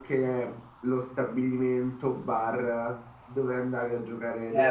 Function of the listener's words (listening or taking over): taking over